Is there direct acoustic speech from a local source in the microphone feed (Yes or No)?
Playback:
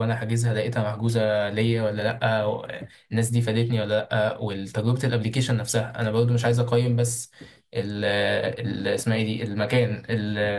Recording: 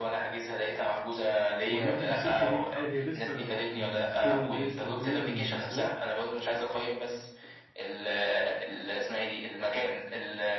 Yes